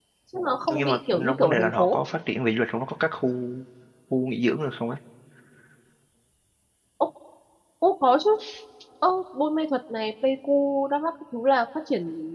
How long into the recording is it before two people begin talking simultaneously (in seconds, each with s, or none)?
0.7 s